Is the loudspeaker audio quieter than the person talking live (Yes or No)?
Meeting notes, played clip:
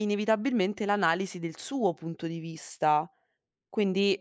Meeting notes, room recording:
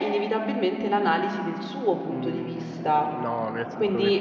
No